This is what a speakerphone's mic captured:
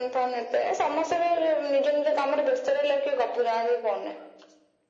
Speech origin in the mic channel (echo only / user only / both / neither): echo only